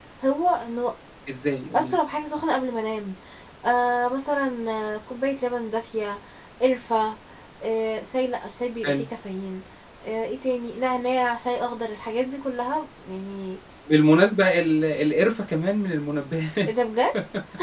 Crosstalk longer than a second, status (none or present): none